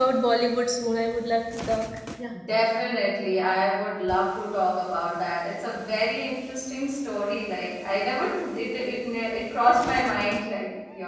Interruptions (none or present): none